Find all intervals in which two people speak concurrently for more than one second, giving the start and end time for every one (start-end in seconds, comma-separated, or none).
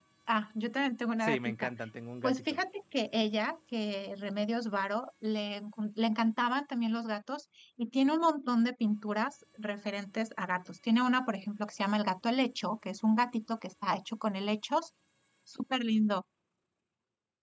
none